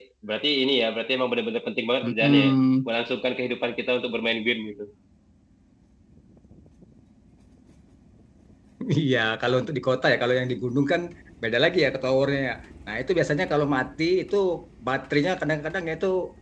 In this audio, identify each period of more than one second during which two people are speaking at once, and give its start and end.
none

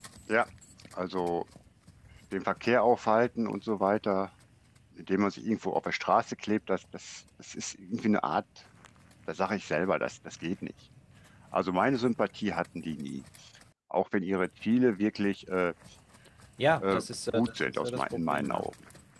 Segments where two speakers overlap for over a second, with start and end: 16.8-18.7

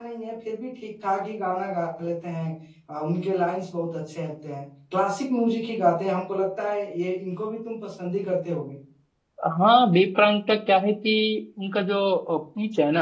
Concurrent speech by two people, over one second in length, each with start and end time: none

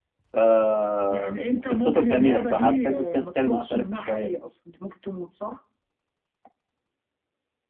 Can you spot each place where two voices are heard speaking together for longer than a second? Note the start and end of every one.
1.7-4.4

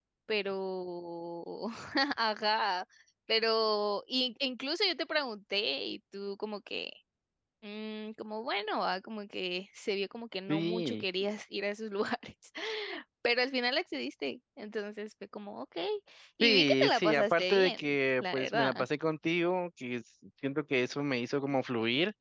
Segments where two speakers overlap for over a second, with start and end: 16.4-18.9

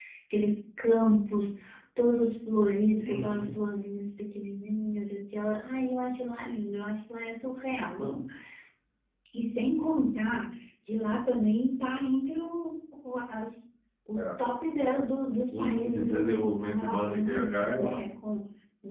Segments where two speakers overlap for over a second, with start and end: 15.5-18.0

